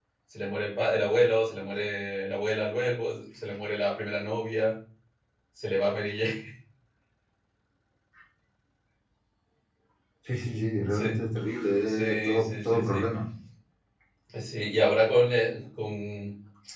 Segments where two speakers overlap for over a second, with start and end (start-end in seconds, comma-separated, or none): 11.9-13.1